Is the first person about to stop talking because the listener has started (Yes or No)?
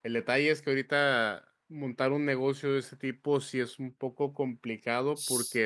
No